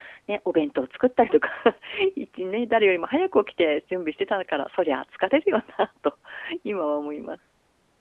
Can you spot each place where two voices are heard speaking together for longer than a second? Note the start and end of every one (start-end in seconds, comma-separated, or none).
none